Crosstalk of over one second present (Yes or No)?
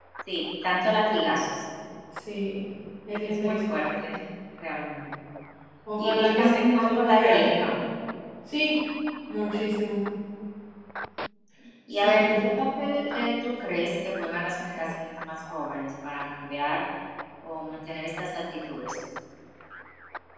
Yes